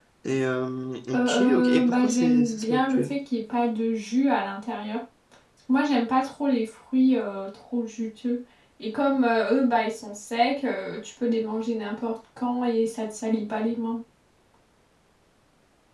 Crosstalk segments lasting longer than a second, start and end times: 1.1-3.2

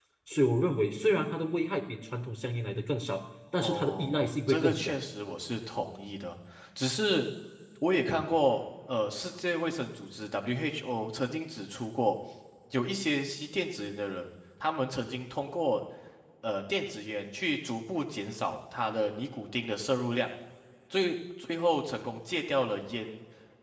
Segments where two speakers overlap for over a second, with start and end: 3.6-5.0

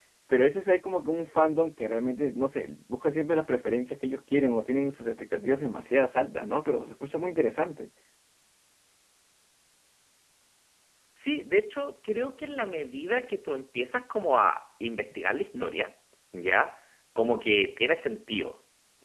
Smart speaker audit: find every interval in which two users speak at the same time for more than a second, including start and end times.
none

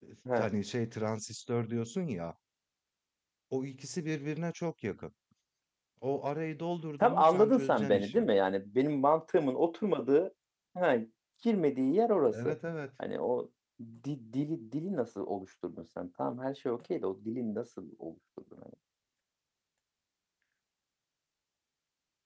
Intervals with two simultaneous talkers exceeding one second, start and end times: 7.0-8.2

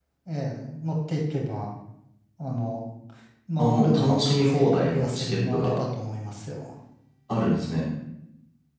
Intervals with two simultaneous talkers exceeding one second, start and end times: 3.6-5.7

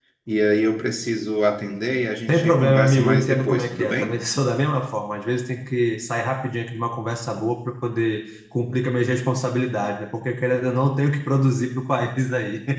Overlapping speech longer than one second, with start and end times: 2.3-4.2

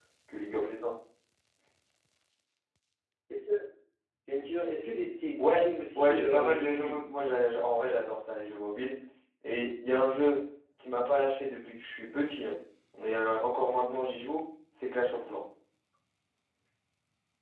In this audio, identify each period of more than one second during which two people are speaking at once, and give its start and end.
5.4-7.0

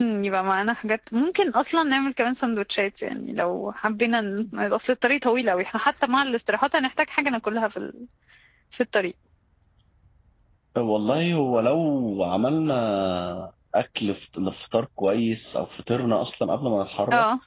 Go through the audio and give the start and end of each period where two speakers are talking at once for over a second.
none

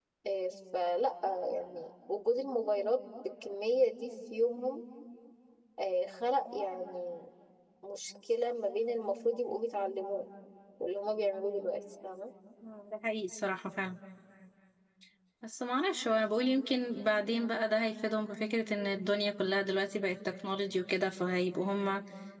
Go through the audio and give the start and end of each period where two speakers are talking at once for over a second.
none

